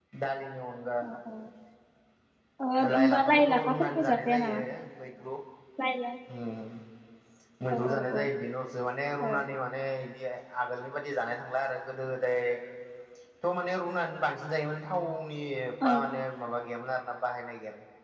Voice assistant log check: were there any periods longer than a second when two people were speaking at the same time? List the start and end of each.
2.9-4.6

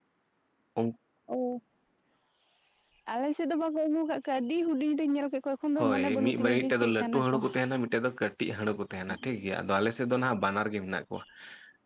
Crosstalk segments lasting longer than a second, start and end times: 5.8-7.4

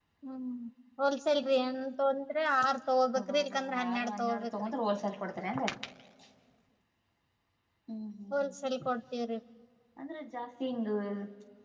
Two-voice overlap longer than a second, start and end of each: 3.2-4.7

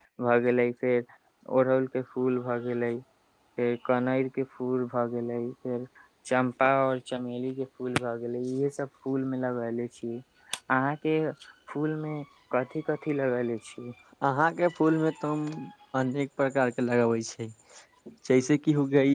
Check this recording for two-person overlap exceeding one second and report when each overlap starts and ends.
none

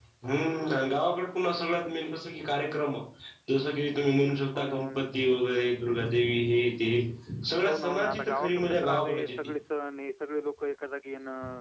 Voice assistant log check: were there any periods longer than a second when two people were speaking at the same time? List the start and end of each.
7.7-9.4

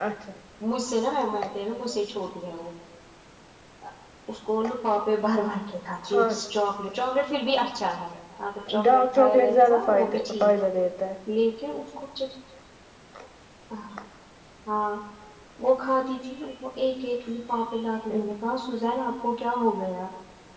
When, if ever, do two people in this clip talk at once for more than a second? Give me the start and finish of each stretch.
8.8-10.5

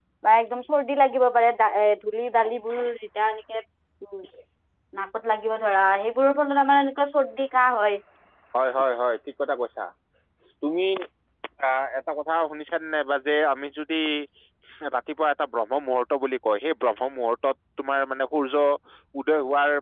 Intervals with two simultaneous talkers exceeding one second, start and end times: none

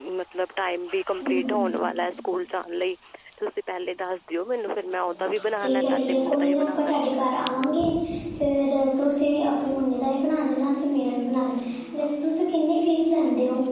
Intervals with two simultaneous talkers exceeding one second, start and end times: 5.6-6.9

